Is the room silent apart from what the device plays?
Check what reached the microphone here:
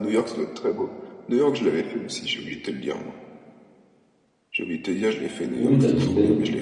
No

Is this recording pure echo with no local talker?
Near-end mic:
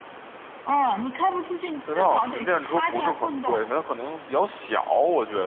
No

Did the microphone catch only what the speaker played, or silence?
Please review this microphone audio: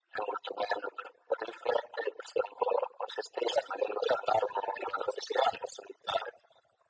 Yes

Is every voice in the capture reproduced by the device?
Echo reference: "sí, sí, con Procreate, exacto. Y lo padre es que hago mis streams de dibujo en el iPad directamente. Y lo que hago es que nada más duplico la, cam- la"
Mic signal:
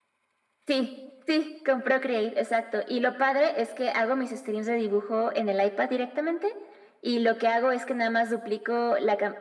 Yes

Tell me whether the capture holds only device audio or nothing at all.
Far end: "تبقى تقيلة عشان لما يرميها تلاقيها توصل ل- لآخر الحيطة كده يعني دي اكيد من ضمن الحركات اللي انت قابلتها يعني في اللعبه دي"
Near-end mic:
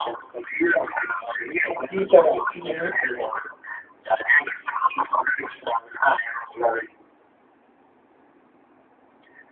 No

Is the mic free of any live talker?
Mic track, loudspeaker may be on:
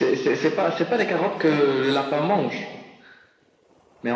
Yes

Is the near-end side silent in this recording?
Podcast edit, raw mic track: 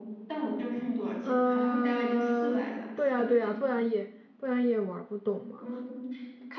No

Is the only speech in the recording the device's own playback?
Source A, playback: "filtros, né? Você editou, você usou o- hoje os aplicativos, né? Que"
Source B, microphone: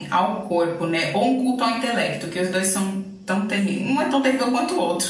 No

